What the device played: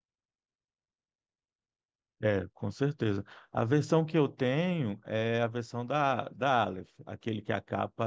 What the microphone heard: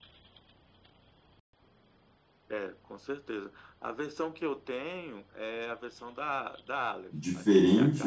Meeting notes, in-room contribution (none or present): present